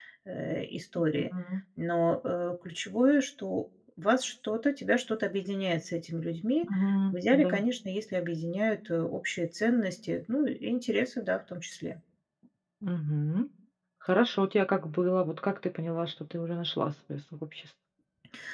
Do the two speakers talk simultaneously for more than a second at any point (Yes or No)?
No